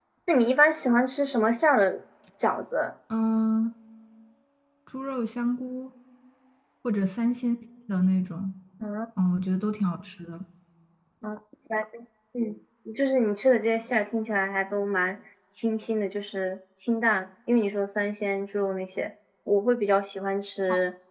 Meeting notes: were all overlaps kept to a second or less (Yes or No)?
Yes